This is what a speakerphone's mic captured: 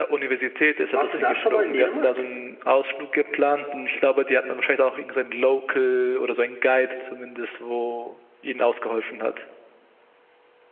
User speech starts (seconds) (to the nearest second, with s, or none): 1 s